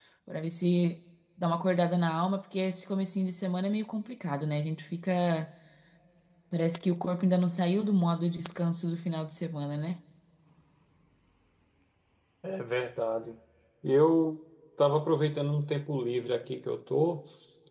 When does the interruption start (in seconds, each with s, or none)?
none